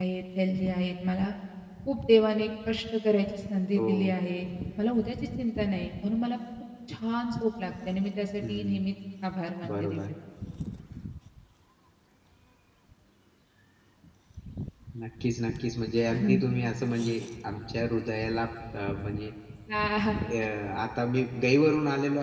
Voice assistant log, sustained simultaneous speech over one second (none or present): none